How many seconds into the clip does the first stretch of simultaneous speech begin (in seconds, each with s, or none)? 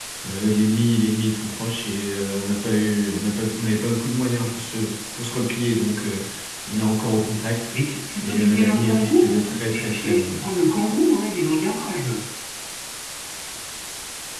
8.2 s